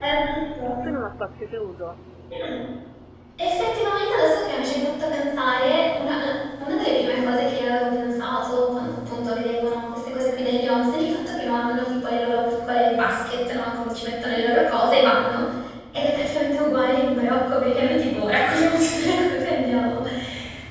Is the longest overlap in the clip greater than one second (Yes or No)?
No